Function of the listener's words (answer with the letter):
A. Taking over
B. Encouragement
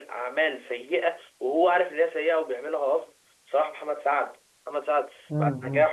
B